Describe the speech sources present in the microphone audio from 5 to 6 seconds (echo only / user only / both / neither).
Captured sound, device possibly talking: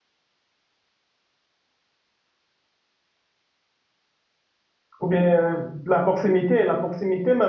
user only